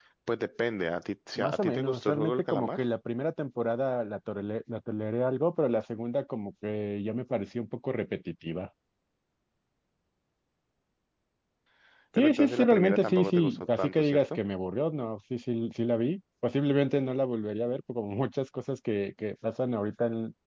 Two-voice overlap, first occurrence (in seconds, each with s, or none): 1.4 s